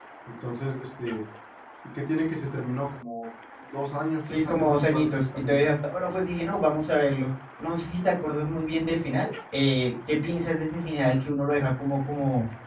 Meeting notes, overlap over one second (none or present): present